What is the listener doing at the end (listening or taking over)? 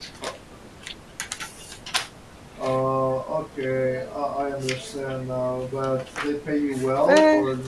taking over